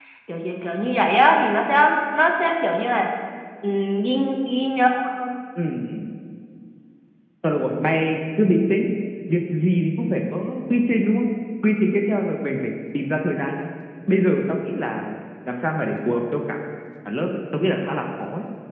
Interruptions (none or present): none